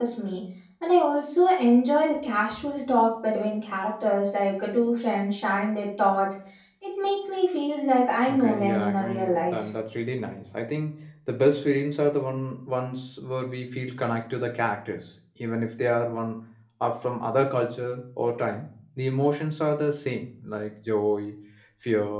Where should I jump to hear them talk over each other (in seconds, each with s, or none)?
8.3 s